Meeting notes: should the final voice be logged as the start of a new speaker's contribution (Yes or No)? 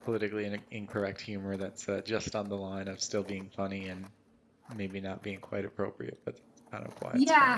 Yes